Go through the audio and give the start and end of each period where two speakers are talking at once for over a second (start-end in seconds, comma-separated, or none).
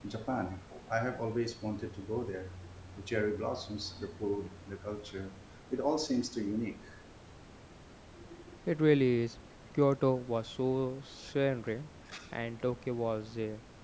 none